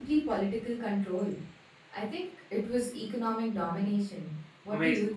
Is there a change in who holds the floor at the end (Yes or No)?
Yes